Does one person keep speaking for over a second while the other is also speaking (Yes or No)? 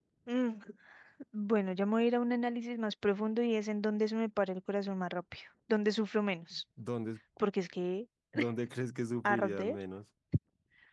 No